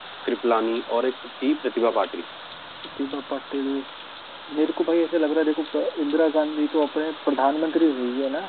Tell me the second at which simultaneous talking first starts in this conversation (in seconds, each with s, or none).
none